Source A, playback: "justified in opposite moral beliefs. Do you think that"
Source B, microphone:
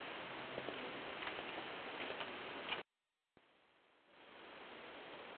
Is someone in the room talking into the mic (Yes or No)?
No